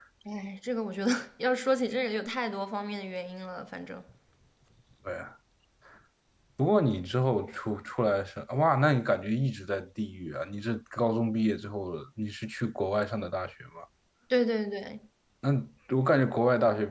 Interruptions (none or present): none